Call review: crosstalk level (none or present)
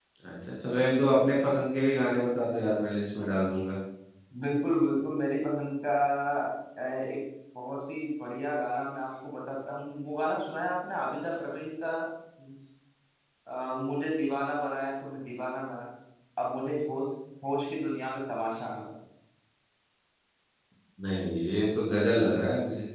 none